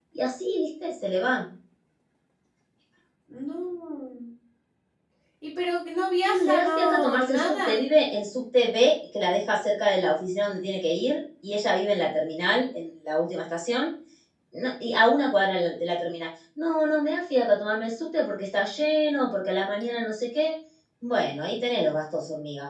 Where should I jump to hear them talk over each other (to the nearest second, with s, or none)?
6 s